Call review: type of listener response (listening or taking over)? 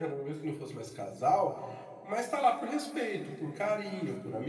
listening